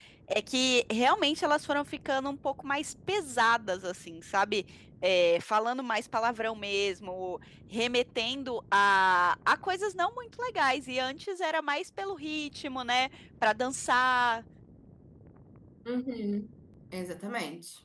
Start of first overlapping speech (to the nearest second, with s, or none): none